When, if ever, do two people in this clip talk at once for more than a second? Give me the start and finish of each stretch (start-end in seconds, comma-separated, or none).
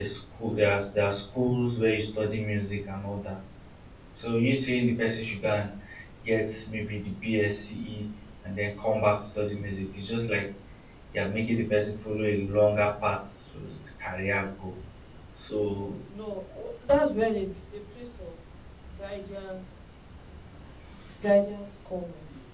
none